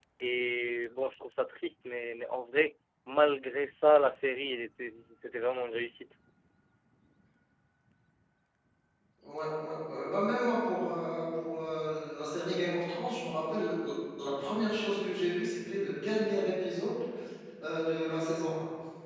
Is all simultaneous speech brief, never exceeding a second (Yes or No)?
Yes